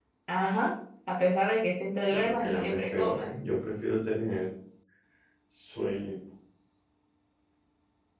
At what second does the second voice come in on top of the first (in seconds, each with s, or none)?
2.1 s